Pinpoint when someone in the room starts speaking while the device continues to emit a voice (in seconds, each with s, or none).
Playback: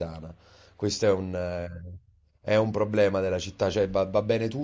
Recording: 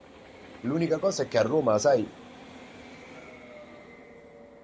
0.6 s